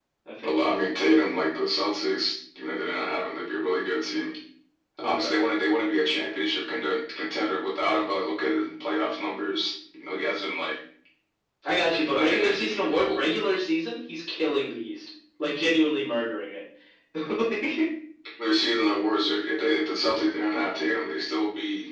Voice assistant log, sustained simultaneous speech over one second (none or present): present